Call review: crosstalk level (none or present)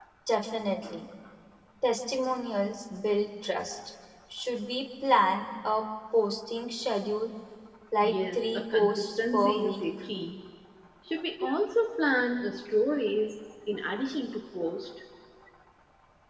present